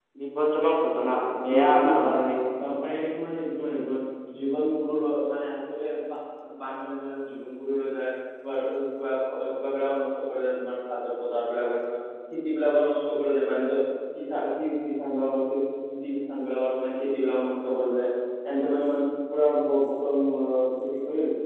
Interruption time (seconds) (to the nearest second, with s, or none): 1 s